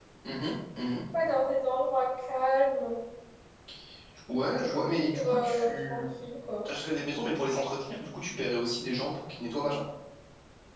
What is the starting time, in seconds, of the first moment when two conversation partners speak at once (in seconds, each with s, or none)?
4.7 s